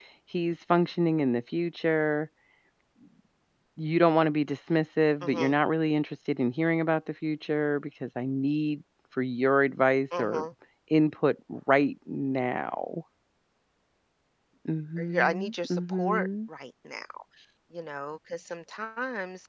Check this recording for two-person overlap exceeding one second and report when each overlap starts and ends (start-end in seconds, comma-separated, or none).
15.0-16.3